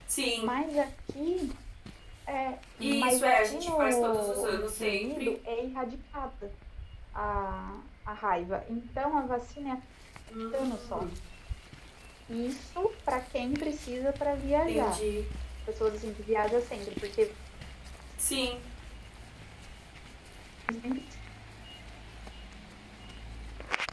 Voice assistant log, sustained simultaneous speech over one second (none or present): present